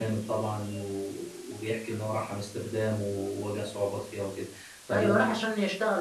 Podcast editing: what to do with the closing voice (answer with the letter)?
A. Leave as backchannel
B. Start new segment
B